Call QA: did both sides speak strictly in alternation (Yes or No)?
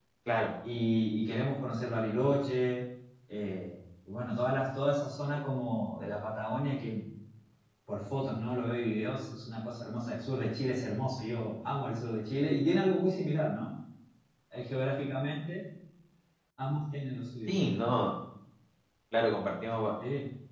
Yes